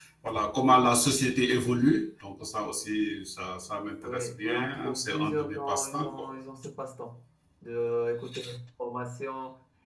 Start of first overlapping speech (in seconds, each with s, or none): 4.0 s